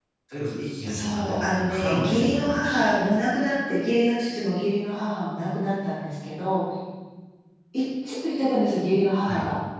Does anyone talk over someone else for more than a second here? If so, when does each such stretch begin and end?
0.8-2.8

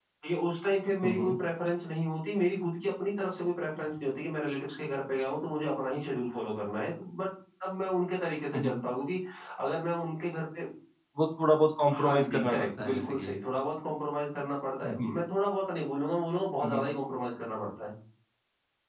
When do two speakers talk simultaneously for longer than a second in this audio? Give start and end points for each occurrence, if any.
12.0-13.3

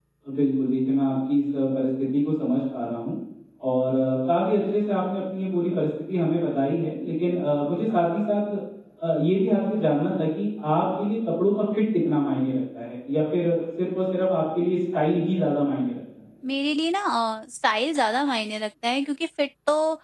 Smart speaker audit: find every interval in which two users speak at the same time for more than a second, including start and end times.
none

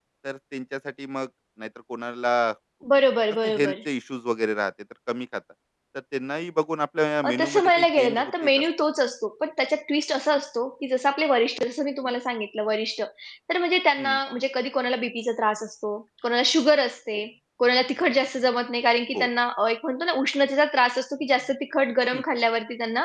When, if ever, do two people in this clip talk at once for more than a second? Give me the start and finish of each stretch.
7.2-8.5

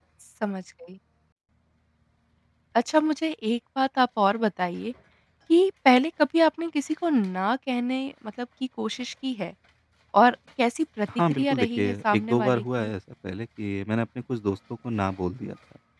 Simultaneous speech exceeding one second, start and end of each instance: 11.3-12.9

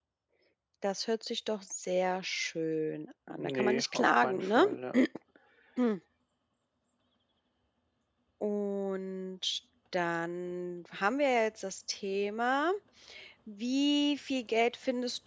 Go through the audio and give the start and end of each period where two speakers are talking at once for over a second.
3.4-4.6

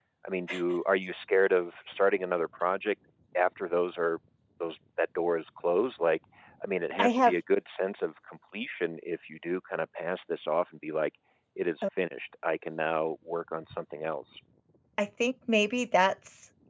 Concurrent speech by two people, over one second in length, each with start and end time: none

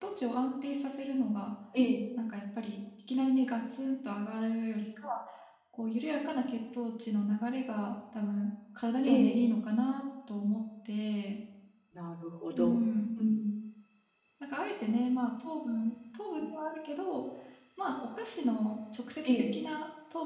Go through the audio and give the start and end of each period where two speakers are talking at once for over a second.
none

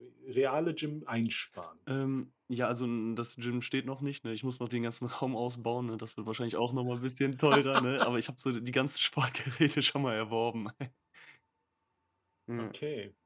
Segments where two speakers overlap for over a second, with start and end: none

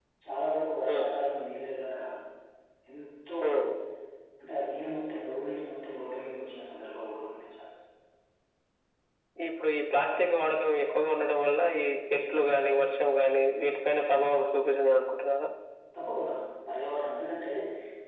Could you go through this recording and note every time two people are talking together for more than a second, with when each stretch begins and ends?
none

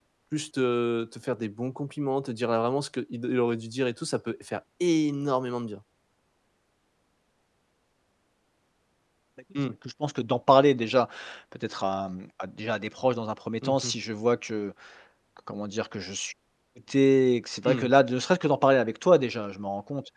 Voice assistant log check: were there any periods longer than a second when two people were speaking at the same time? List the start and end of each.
none

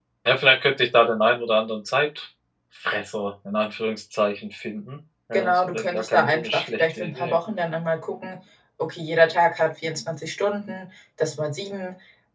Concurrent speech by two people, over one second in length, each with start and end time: 5.3-7.4

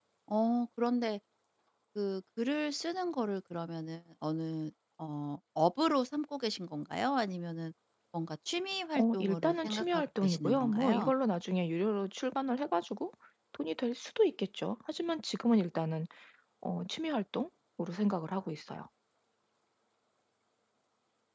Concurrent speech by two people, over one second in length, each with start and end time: 8.9-11.1

